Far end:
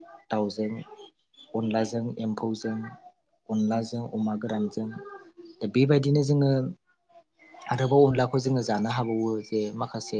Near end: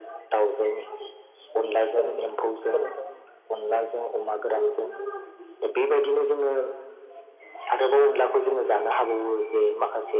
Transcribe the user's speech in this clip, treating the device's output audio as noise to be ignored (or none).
औ नोंथां औ नोंथां औ